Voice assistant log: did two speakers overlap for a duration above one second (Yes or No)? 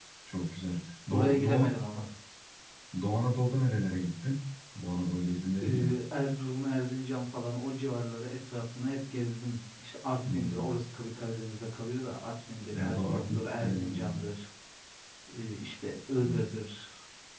Yes